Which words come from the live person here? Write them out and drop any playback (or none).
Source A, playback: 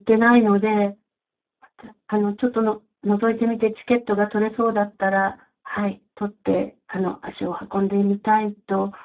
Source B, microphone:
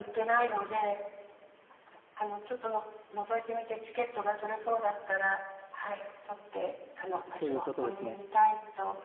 そういうことですね。